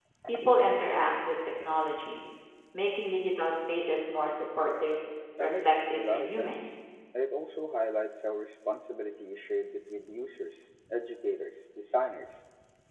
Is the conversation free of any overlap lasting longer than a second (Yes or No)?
No